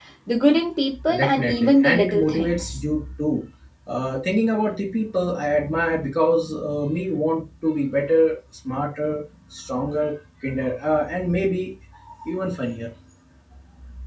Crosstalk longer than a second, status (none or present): present